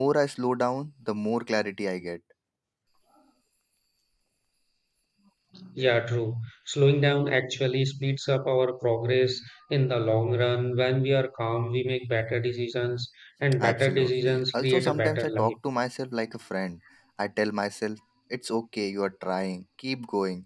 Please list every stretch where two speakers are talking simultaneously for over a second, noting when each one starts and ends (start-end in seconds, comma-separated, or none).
13.6-15.5